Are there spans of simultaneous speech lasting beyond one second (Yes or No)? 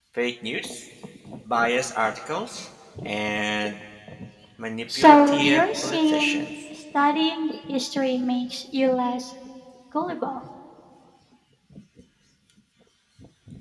Yes